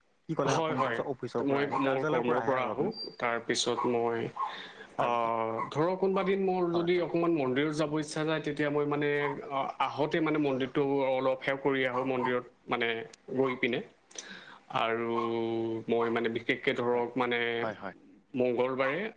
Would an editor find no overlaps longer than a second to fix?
No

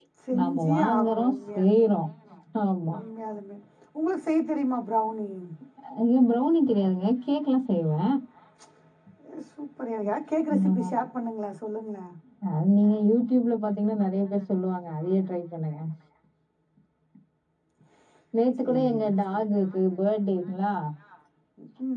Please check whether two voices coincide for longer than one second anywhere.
Yes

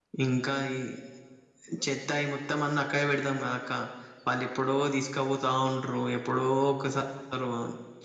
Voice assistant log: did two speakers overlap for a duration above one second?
No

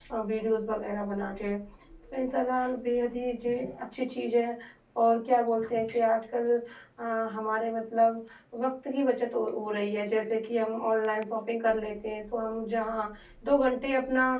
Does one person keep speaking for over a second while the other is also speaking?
No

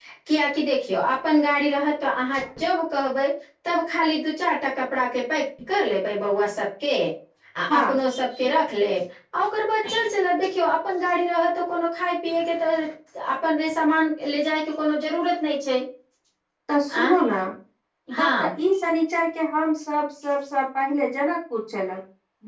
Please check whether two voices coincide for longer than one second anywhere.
No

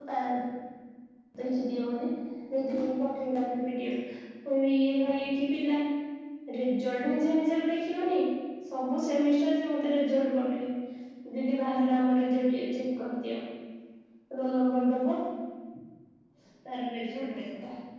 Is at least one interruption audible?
No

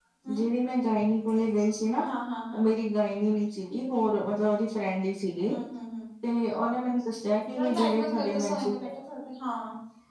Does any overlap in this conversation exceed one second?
Yes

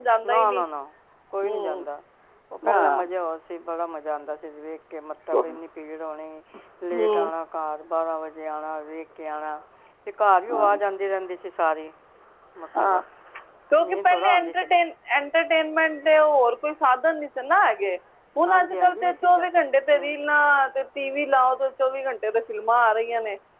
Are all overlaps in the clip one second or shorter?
No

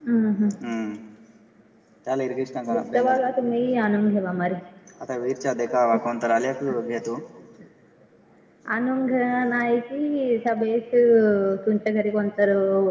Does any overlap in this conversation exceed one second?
No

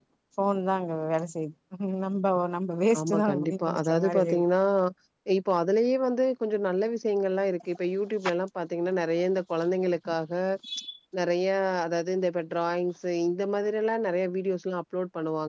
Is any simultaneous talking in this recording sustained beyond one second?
Yes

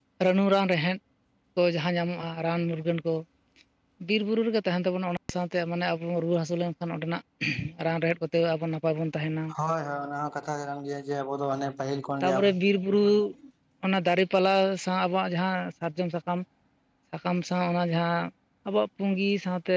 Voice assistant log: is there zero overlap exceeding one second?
Yes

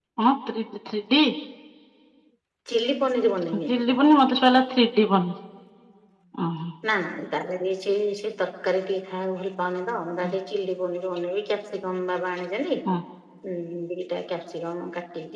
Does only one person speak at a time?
Yes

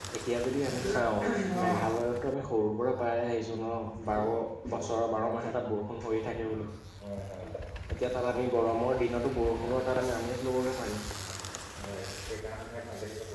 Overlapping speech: No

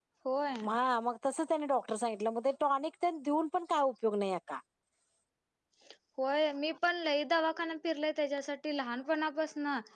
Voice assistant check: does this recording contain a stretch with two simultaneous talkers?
No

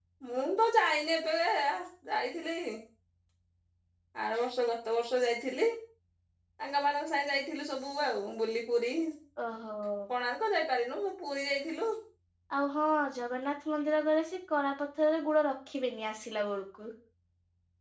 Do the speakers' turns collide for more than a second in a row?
No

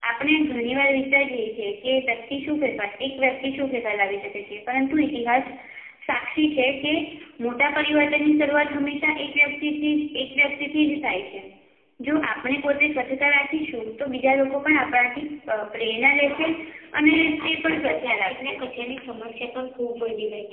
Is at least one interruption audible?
Yes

